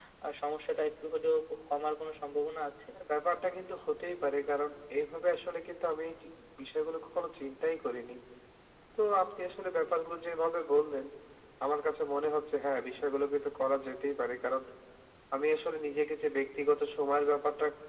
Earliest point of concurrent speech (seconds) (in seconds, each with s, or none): none